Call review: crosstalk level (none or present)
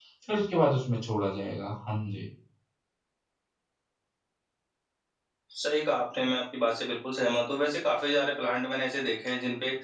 none